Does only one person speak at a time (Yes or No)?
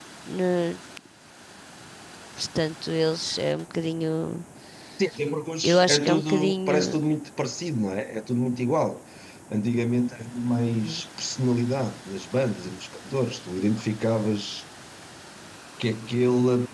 No